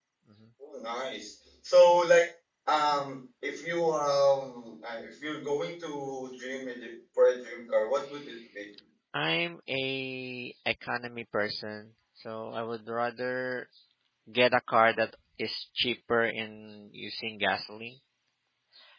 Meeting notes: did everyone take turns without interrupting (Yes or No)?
Yes